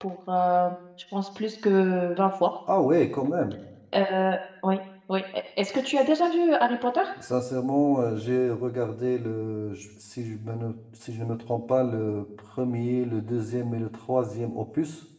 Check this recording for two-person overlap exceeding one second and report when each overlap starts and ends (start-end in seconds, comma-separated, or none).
none